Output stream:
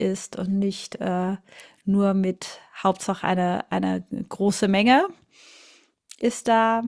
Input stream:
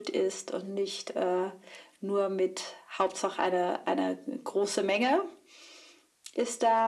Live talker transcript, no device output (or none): none